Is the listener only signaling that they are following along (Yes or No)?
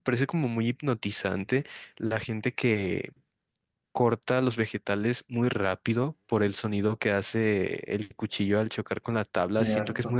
Yes